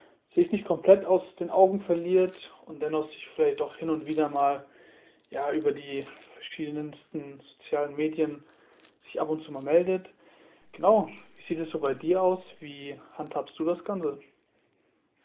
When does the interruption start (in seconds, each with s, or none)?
none